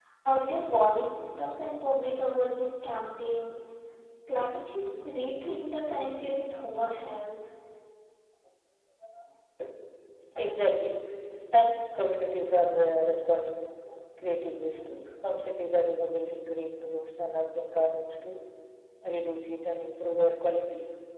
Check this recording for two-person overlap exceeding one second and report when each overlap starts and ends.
none

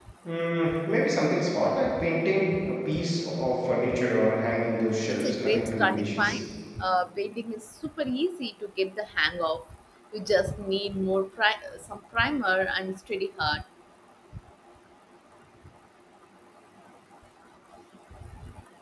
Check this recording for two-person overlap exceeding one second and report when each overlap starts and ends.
5.1-6.4

